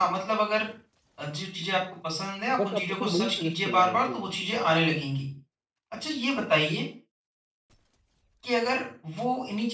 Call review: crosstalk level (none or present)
present